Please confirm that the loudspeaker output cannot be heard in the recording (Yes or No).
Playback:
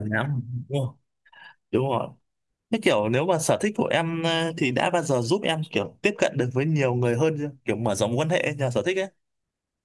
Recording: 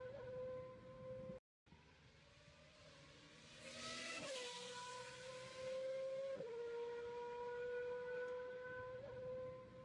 Yes